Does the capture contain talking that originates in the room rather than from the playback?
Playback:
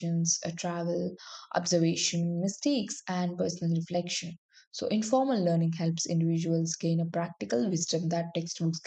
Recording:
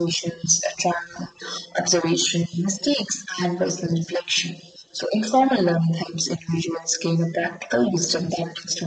No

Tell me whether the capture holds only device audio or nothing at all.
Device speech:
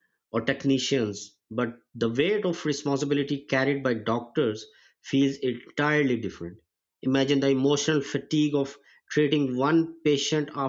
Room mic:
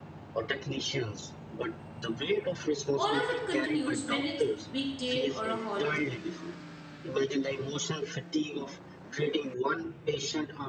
No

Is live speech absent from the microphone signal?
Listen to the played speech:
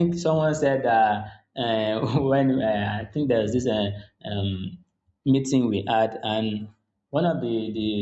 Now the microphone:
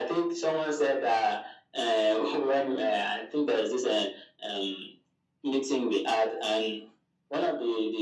Yes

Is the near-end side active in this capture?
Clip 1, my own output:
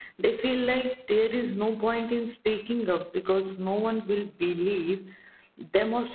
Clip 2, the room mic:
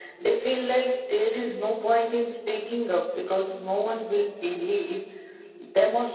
No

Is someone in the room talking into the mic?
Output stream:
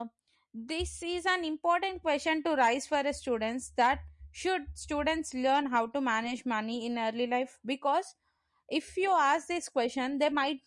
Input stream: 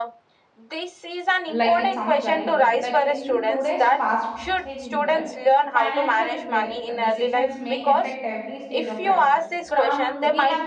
Yes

